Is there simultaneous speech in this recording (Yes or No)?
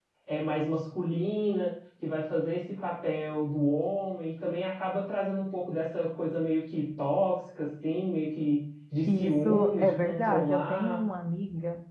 Yes